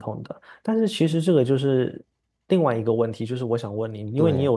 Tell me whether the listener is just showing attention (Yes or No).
Yes